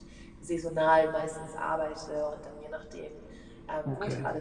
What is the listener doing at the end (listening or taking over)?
listening